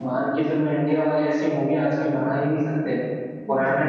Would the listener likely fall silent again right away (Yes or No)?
Yes